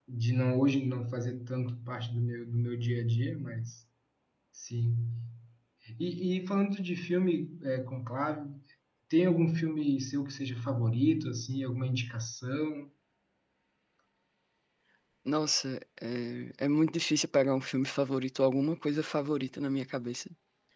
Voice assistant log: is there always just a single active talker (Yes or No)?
Yes